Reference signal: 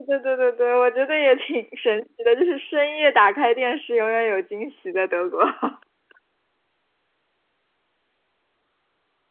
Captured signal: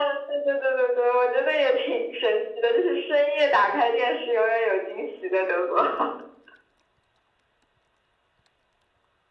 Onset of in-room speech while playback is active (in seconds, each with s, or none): none